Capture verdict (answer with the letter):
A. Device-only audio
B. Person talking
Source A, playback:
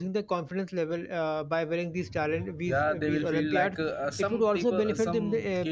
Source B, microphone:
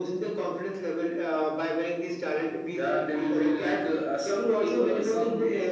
A